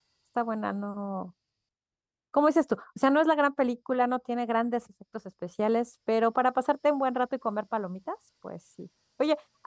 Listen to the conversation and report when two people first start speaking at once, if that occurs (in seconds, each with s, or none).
none